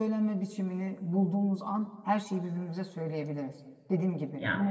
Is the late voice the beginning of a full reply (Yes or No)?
No